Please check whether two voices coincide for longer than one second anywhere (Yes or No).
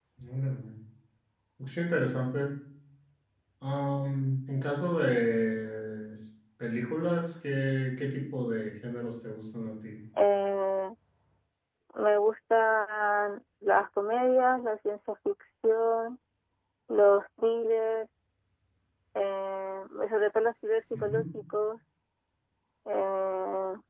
No